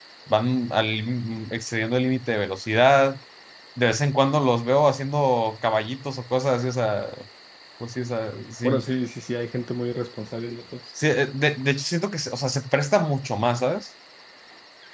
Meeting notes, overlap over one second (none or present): none